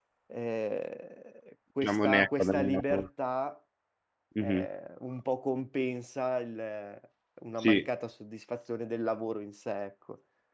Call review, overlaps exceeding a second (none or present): present